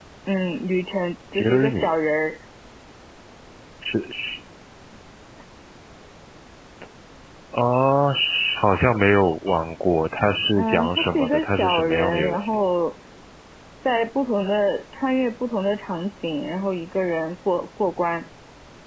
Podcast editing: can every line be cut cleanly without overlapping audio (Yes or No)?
No